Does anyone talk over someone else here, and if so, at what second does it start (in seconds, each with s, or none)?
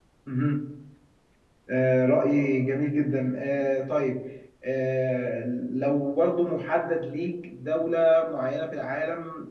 none